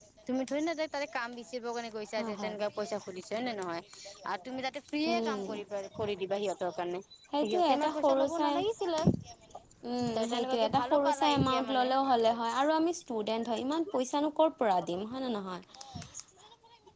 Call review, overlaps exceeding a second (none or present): present